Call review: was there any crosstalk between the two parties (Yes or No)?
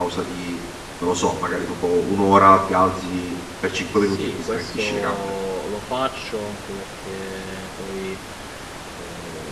Yes